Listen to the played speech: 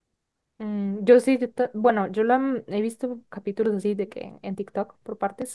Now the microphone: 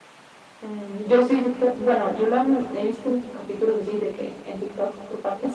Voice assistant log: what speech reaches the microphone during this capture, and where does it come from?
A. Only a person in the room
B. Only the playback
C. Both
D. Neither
B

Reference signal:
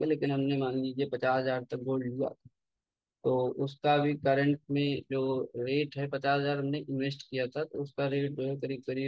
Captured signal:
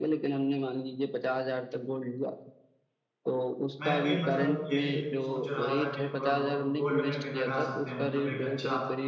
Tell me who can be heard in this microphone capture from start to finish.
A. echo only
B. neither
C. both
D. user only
C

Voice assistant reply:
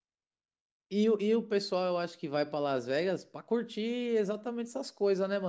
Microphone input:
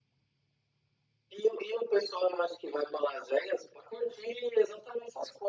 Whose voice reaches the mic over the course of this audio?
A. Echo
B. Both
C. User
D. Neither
A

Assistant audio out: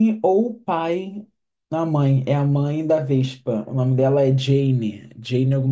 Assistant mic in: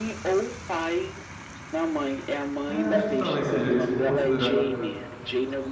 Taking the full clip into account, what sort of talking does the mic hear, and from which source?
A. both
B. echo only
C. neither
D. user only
A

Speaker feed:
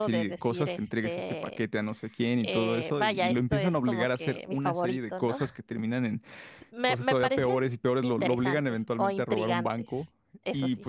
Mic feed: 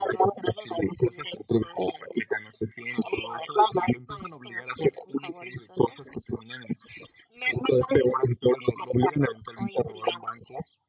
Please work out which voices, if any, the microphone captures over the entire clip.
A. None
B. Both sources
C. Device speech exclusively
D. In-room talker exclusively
C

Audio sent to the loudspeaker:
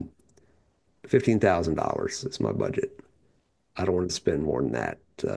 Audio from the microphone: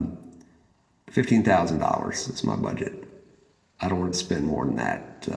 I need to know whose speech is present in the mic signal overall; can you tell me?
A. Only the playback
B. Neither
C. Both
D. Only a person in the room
A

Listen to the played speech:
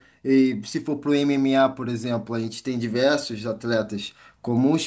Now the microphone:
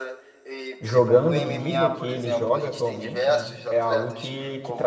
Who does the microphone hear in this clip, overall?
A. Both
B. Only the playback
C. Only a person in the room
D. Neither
A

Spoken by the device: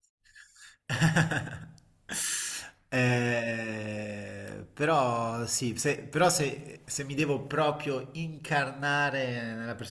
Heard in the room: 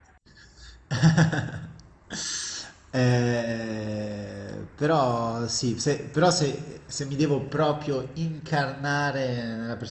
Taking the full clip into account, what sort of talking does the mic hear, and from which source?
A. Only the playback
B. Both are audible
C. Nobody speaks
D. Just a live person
A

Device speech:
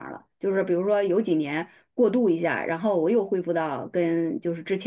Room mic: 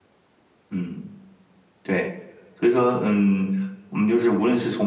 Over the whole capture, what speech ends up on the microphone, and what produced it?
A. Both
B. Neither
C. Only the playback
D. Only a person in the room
D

